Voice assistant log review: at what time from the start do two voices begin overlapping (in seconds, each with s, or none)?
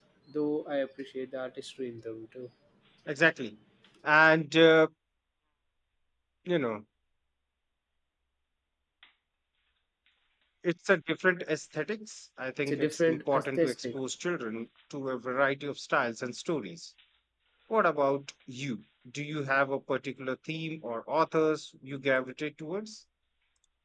12.7 s